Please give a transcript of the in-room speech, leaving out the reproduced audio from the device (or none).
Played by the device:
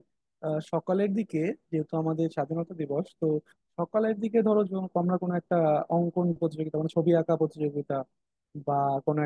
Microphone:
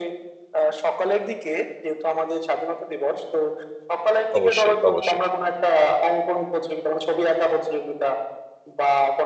অবশ্যই অবশ্যই